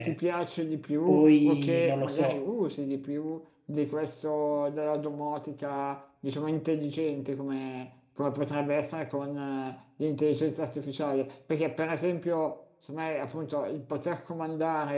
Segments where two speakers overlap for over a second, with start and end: 1.1-2.4

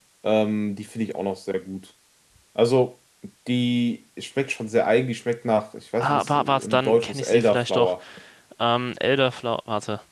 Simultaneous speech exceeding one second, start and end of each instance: 6.0-7.9

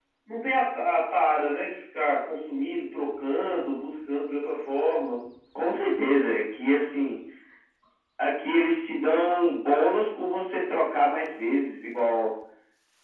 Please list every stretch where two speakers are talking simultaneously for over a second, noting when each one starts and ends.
none

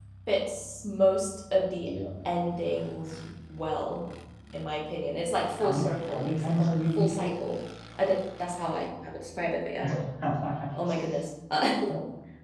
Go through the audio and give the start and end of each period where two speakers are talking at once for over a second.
5.6-7.3

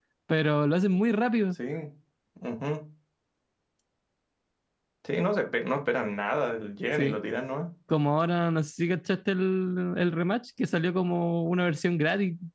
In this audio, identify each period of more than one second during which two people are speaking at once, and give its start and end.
none

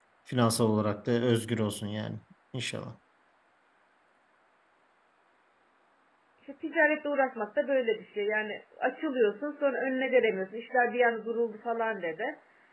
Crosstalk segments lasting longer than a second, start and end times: none

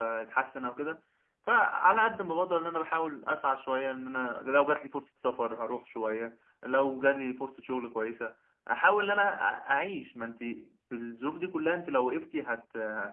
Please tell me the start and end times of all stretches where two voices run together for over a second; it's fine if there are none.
none

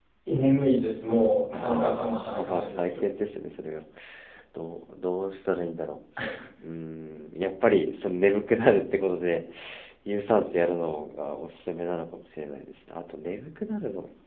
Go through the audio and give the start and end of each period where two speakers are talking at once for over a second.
1.5-3.0

